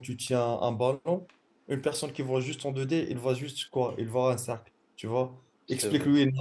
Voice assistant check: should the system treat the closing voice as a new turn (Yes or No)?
No